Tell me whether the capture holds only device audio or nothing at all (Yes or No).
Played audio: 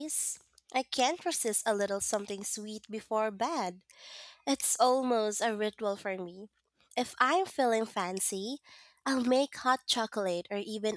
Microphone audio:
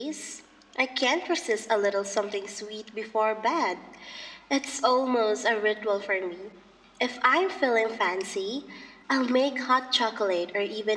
Yes